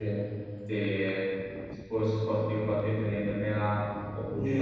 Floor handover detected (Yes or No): Yes